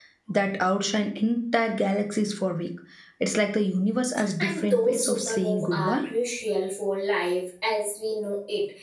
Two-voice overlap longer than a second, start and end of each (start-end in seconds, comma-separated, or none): 4.4-6.0